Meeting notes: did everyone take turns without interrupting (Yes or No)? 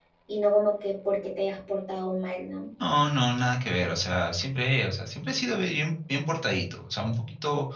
Yes